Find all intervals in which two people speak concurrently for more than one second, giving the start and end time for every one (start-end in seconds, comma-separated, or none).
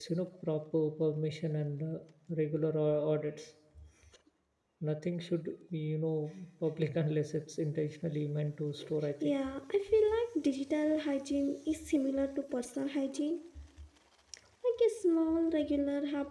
none